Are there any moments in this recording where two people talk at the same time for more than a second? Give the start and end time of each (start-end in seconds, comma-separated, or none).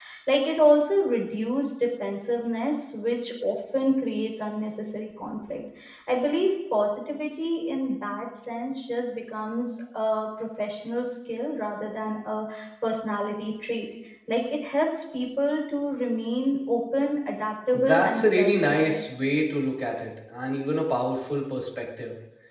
17.7-19.0